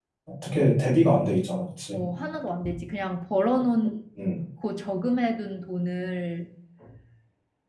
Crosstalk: none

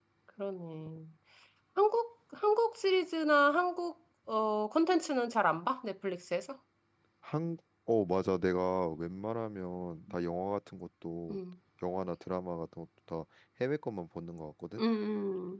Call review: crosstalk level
none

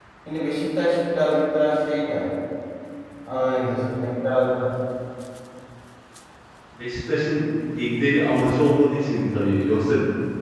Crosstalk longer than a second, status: none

